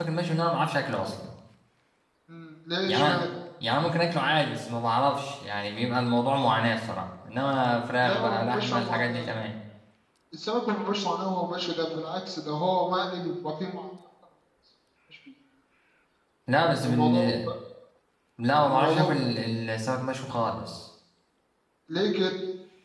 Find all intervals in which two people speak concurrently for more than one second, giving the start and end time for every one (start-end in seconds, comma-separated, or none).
8.0-9.3